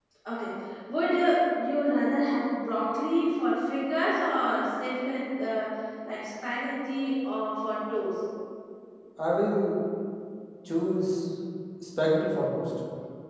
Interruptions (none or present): none